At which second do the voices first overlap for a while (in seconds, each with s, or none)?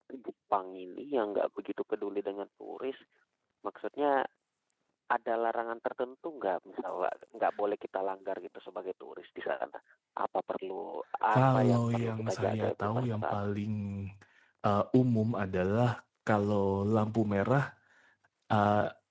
11.3 s